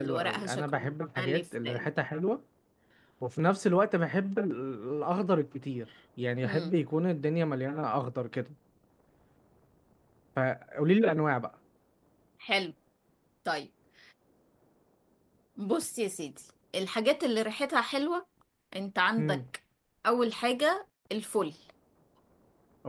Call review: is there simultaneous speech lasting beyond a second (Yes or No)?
Yes